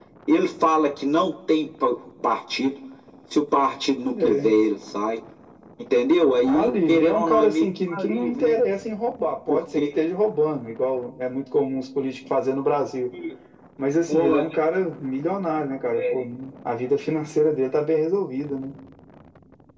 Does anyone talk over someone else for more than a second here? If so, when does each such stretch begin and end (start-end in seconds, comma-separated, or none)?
6.5-8.6